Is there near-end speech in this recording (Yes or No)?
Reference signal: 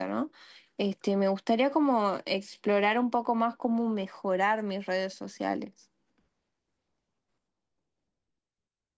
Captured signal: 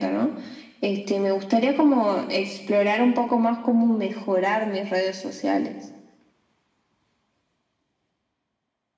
No